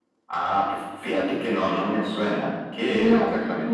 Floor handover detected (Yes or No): Yes